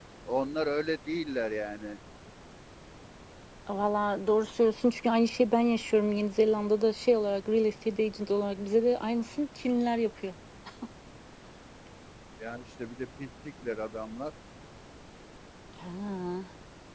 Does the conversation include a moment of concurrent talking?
No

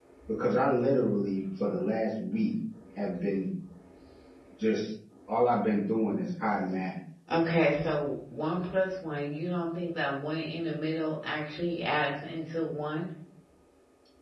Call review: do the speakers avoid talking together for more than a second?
Yes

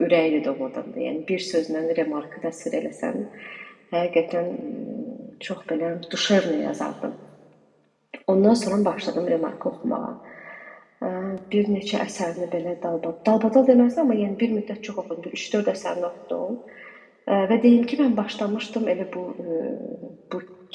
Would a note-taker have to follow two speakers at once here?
No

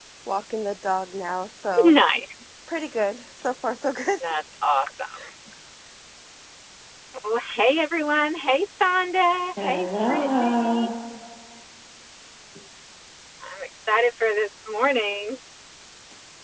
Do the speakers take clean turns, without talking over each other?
No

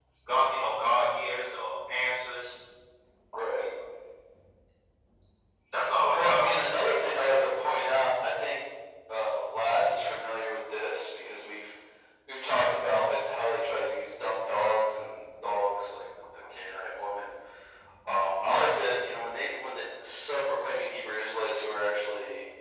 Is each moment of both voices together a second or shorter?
Yes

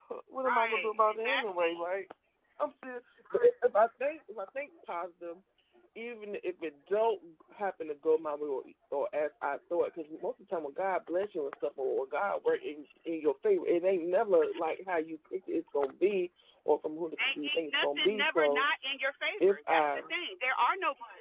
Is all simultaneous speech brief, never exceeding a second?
No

